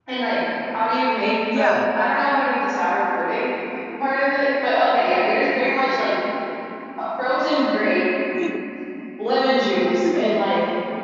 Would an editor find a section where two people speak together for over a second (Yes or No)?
No